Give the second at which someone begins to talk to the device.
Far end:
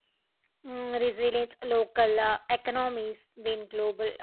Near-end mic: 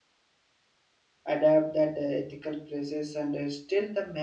1.2 s

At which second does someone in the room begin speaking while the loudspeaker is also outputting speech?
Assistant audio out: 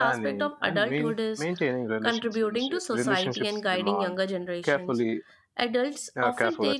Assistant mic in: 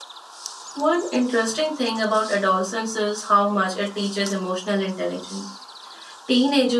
0.7 s

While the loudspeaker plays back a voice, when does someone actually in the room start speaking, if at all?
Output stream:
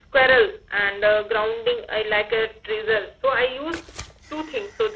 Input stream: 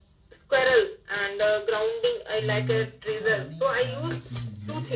2.4 s

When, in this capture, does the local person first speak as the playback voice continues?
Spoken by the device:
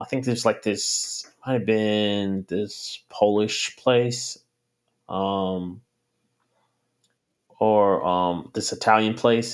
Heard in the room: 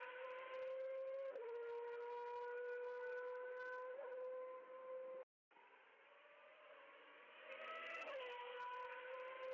none

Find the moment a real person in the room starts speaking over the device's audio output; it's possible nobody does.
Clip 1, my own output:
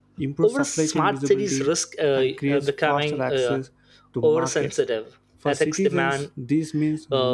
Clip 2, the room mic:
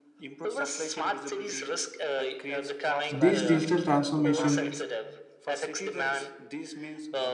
3.1 s

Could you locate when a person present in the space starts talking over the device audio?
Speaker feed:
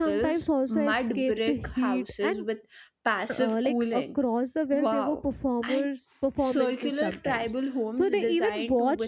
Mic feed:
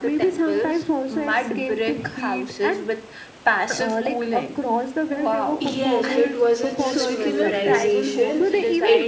5.6 s

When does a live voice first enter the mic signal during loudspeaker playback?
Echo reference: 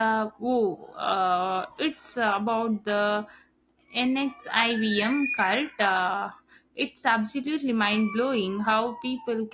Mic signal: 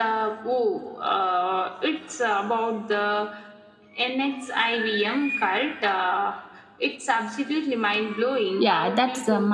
8.6 s

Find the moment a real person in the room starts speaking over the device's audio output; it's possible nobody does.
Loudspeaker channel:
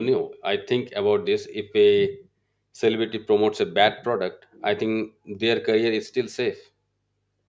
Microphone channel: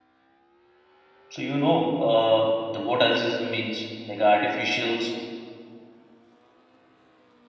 1.3 s

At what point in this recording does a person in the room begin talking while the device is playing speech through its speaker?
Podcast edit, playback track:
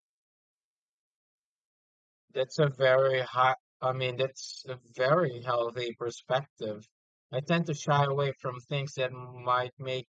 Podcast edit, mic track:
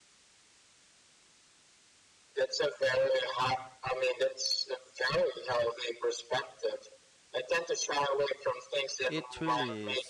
9.1 s

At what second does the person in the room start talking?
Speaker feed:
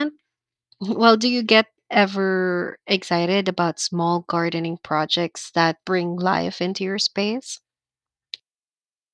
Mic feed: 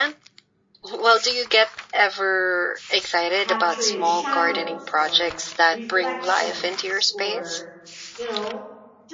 3.4 s

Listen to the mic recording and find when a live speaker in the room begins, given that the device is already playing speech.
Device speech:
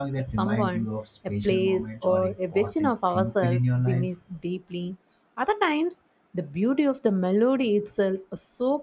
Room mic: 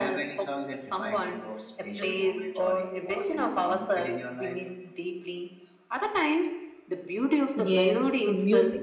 7.6 s

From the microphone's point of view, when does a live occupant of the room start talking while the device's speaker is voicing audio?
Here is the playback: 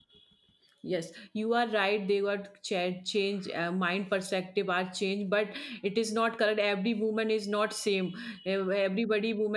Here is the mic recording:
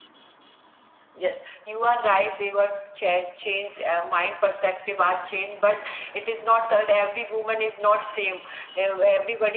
none

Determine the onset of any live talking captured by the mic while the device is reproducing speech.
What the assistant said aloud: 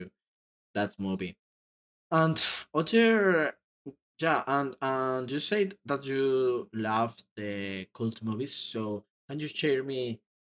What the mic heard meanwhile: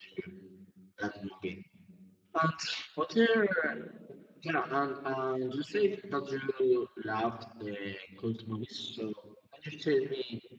none

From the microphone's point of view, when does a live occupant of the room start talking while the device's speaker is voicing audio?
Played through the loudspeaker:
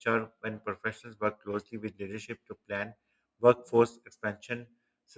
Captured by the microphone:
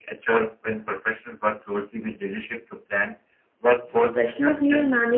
4.0 s

